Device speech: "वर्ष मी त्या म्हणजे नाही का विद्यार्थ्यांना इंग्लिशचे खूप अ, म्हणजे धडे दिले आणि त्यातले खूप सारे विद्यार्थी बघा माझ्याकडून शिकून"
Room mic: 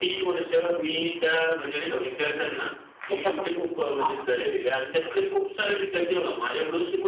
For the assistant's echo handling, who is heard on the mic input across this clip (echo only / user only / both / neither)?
both